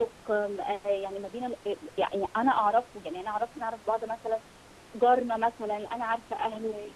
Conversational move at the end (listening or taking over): listening